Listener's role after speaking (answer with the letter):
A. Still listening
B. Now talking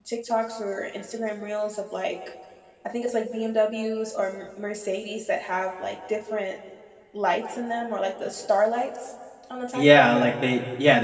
B